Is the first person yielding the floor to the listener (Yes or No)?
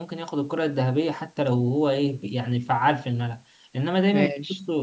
No